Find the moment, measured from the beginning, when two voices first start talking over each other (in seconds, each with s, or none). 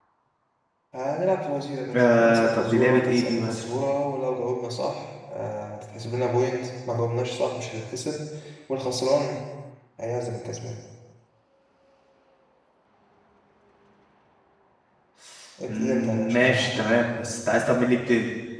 1.9 s